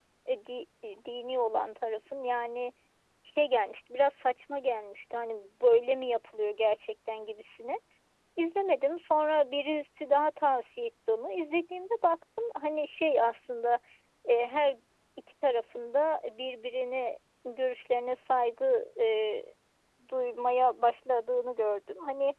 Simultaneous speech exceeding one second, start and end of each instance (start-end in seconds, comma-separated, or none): none